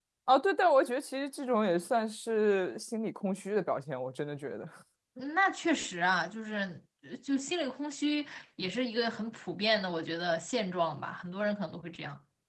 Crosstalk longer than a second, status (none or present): none